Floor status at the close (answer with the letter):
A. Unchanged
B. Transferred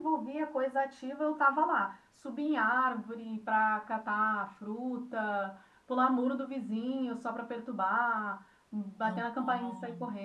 A